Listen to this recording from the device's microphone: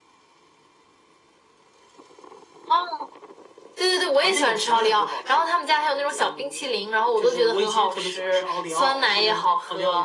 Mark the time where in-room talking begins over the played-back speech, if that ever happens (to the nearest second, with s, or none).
none